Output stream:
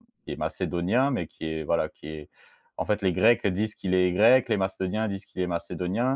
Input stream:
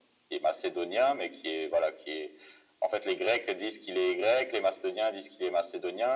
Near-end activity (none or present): none